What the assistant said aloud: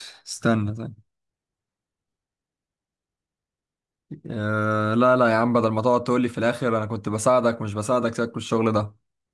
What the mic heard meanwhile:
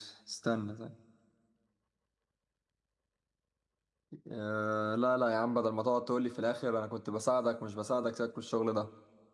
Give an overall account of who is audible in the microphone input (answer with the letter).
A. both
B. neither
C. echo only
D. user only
C